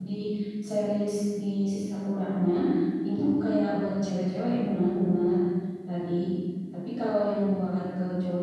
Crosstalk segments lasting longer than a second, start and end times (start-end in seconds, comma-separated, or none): none